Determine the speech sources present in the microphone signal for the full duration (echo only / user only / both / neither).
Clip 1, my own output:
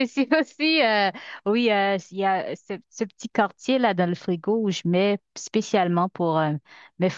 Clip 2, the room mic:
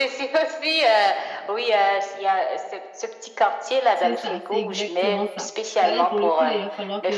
both